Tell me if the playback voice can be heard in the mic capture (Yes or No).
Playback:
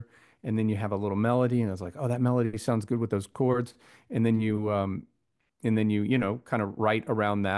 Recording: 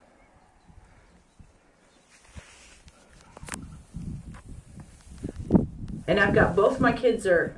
No